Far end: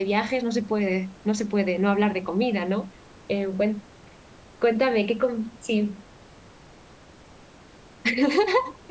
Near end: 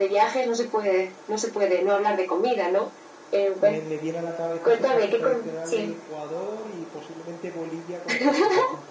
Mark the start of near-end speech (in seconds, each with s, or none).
3.6 s